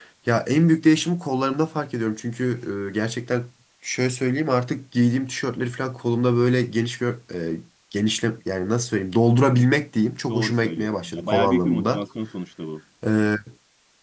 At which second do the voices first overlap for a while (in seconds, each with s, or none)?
10.3 s